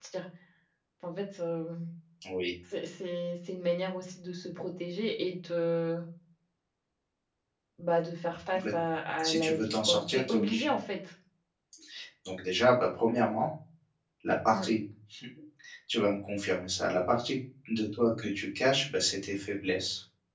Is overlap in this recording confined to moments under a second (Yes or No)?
No